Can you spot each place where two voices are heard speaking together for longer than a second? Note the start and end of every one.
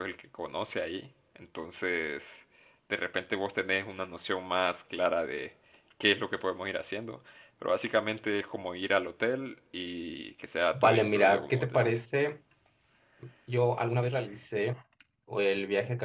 10.7-11.9

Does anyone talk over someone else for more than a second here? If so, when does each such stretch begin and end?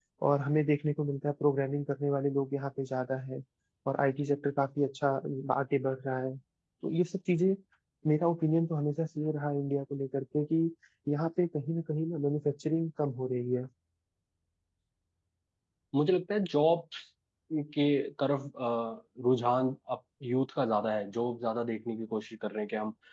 none

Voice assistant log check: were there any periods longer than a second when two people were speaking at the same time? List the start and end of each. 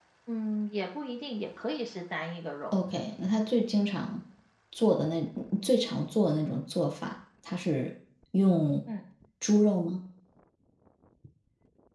none

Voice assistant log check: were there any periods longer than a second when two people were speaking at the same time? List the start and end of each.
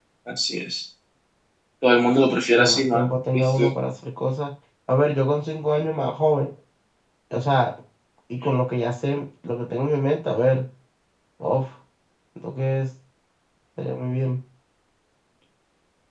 2.6-3.8

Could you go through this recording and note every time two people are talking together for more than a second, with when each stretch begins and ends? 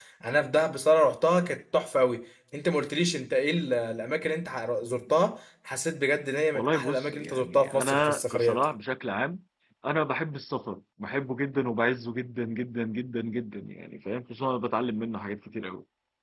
6.5-8.7

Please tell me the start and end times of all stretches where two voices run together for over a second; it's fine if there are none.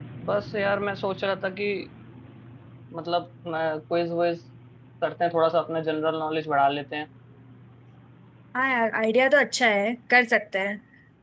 none

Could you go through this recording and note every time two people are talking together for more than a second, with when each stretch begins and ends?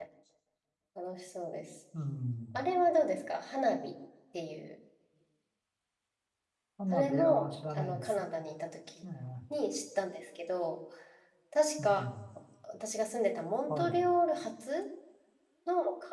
6.9-8.2

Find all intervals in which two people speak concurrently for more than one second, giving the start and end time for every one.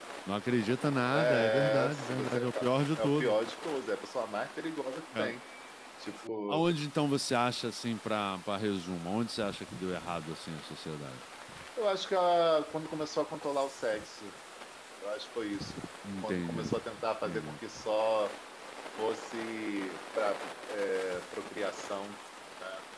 1.1-3.3

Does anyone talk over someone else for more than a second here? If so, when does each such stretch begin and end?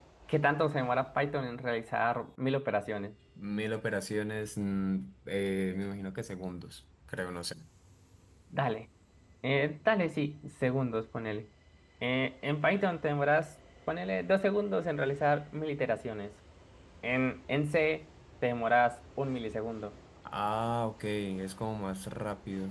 none

